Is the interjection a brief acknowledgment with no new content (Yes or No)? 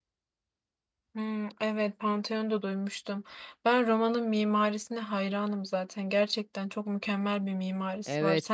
No